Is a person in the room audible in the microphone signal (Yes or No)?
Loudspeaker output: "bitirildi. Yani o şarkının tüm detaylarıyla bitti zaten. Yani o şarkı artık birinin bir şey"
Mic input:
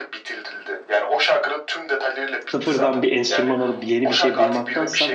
Yes